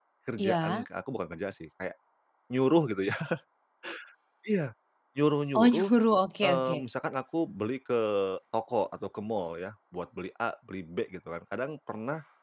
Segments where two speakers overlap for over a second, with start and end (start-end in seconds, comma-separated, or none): none